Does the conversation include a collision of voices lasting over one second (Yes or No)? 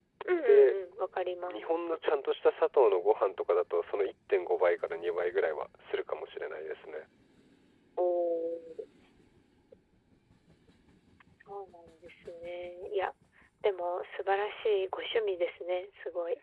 No